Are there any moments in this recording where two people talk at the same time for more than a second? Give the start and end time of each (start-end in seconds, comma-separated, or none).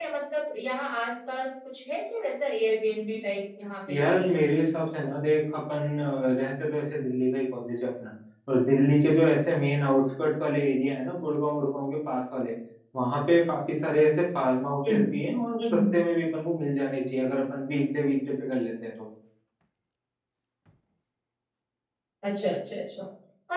none